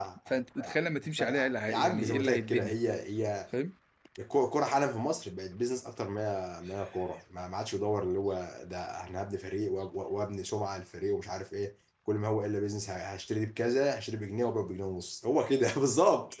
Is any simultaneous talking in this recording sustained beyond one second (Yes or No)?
Yes